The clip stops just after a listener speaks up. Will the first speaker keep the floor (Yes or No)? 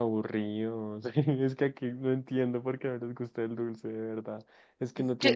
Yes